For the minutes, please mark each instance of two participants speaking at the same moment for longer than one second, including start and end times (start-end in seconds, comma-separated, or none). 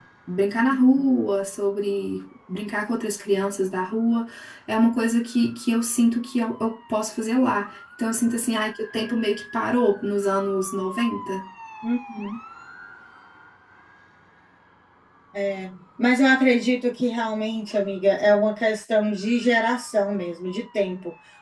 none